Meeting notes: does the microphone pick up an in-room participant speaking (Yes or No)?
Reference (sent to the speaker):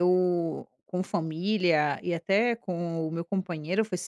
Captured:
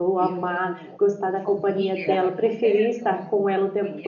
Yes